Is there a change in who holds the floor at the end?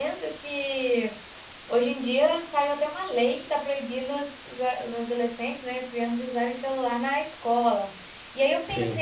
No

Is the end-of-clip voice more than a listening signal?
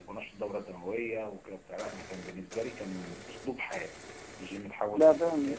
No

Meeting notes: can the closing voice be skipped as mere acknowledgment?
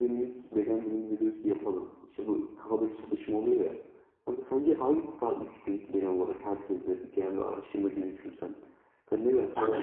No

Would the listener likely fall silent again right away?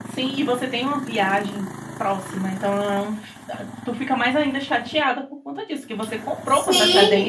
No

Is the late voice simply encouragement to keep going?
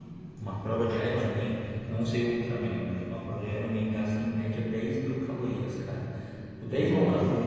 Yes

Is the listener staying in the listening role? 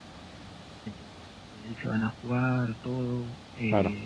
Yes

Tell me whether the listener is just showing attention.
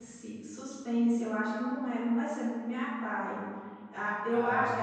Yes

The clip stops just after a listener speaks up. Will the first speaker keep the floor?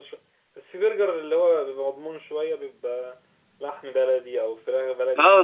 No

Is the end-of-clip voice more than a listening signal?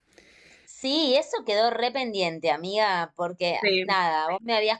No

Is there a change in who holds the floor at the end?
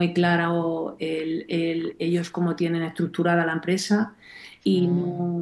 No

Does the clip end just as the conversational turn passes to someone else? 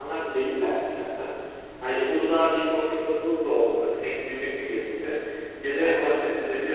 No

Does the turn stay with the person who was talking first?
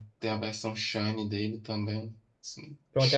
No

